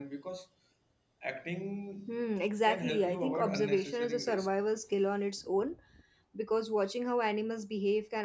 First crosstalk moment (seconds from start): 2.6 s

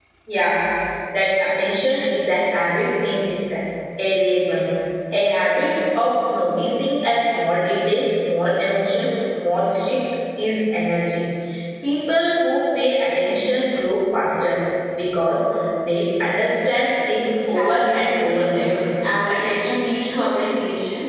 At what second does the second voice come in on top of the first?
17.5 s

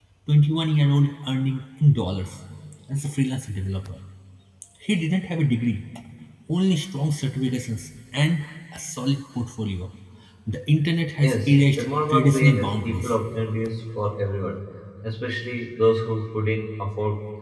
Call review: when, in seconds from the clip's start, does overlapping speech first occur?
11.2 s

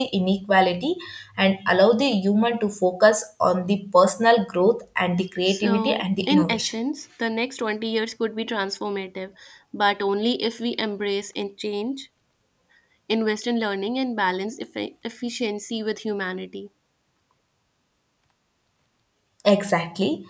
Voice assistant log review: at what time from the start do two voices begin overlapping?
5.5 s

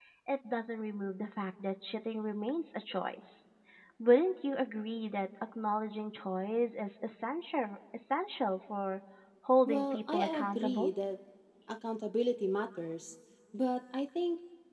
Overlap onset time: 9.7 s

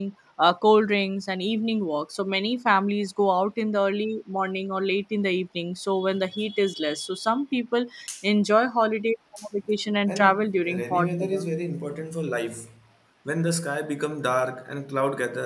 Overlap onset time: 10.1 s

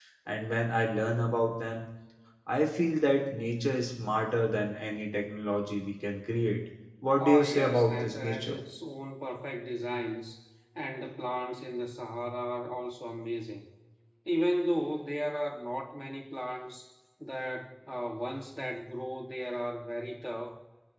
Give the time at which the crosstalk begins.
7.2 s

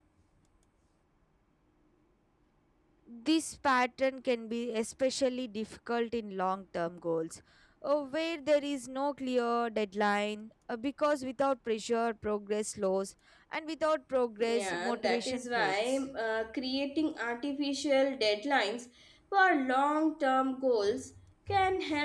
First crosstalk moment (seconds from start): 14.4 s

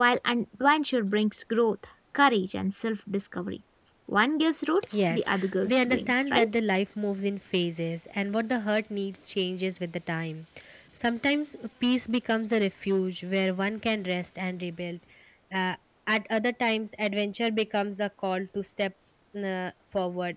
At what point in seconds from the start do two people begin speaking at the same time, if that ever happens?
5.1 s

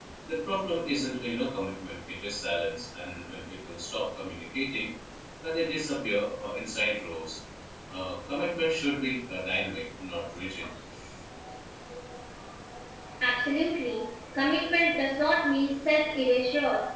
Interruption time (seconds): none

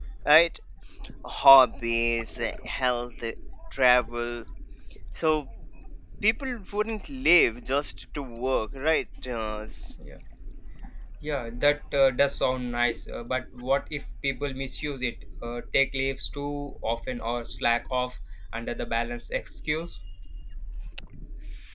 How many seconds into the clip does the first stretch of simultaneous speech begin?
none

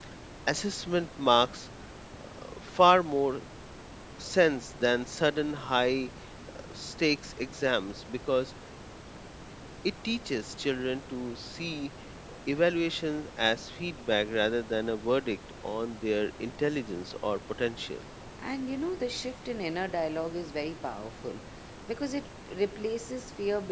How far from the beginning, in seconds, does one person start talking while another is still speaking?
none

